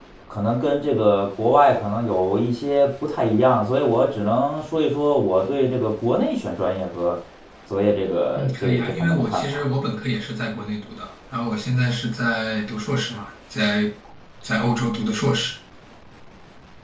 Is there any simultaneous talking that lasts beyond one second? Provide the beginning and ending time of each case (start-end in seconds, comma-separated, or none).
8.3-9.7